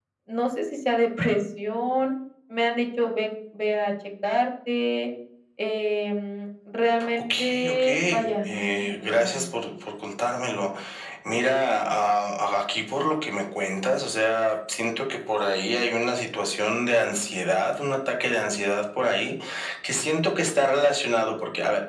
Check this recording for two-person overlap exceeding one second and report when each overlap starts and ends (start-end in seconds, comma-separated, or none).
7.4-9.5